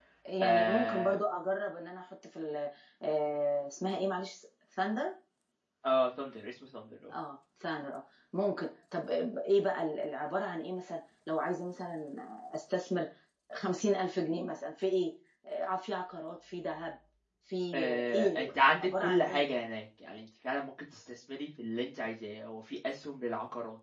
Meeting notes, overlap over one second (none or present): present